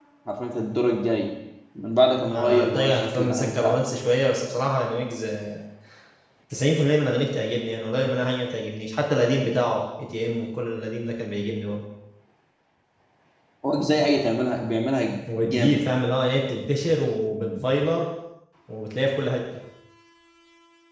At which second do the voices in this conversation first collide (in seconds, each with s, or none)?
2.3 s